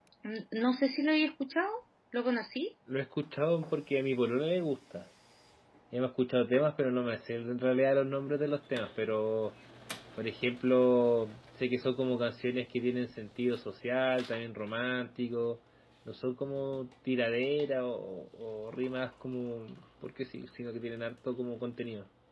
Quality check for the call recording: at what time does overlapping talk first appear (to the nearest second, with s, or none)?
none